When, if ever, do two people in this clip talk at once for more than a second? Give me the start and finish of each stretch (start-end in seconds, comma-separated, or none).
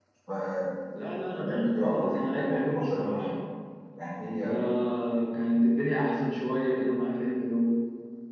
1.4-3.3